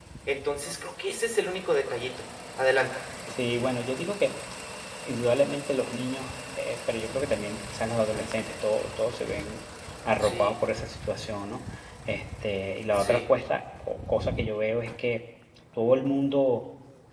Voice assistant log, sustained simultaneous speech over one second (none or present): none